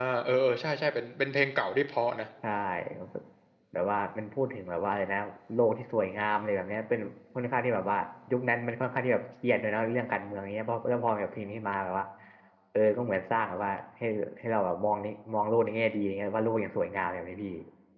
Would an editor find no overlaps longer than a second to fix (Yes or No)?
Yes